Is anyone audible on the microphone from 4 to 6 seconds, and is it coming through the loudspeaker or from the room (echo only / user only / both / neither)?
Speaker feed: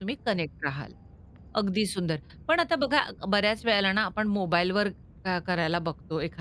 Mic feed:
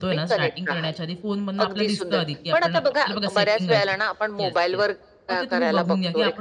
both